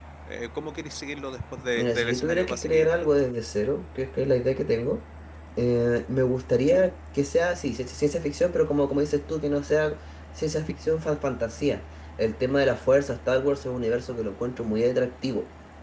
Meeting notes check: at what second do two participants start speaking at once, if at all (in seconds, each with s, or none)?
1.8 s